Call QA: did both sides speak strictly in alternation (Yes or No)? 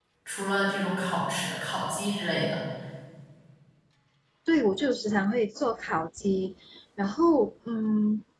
Yes